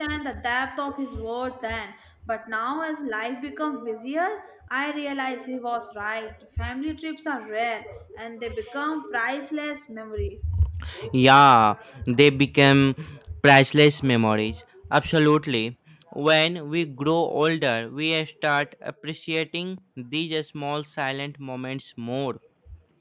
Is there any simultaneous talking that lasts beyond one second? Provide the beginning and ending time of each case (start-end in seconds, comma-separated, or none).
none